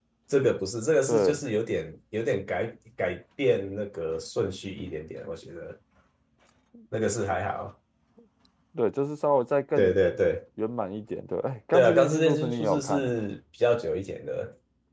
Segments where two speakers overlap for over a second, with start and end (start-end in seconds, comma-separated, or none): 11.7-13.1